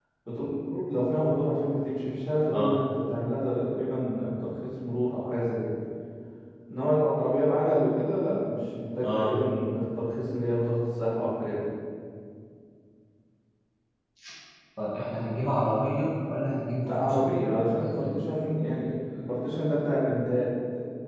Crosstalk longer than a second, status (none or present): none